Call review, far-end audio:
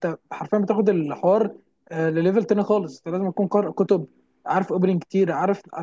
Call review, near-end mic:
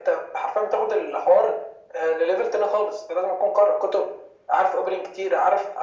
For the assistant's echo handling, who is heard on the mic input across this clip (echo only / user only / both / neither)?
echo only